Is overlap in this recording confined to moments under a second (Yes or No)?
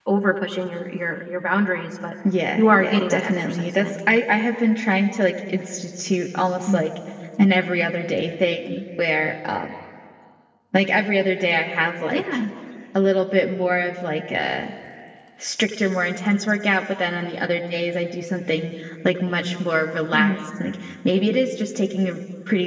No